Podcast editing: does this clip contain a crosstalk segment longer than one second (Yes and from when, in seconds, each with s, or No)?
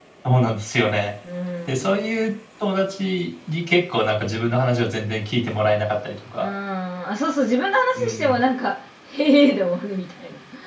No